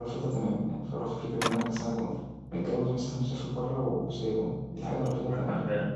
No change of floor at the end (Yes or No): No